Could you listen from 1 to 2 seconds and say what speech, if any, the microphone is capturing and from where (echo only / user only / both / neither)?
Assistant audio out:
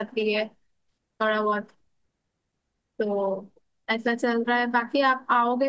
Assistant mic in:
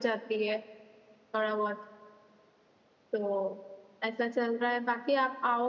echo only